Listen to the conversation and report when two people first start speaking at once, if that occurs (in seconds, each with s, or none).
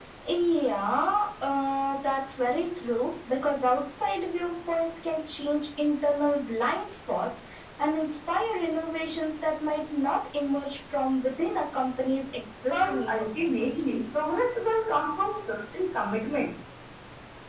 12.7 s